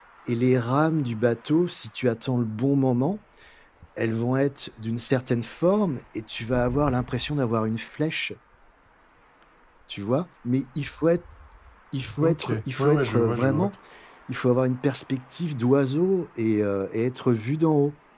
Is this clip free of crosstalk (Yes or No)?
No